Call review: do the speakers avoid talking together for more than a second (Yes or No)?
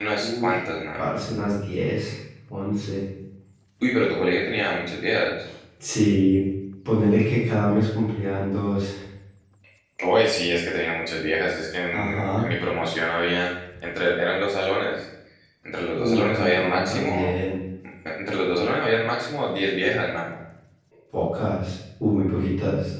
No